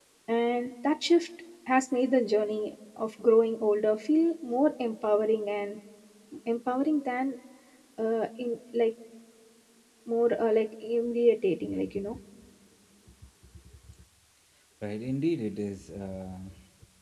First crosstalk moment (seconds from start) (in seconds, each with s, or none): none